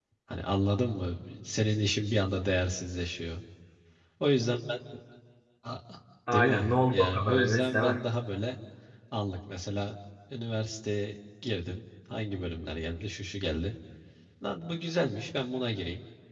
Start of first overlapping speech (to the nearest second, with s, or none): 6 s